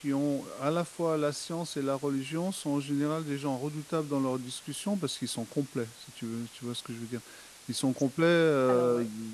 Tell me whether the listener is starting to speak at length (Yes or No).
No